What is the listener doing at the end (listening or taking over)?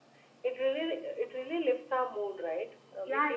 taking over